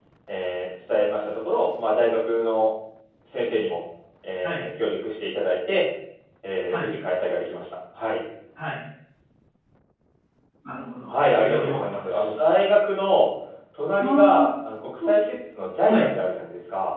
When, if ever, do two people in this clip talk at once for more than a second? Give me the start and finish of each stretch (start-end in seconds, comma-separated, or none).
11.1-12.4